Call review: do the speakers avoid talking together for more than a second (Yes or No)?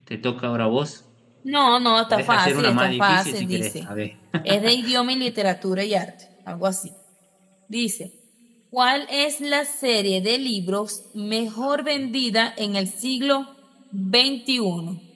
No